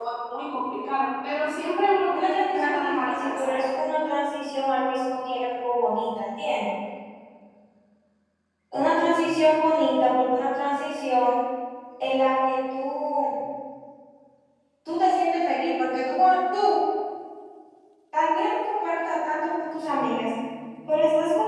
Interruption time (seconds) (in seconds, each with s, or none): 2.1 s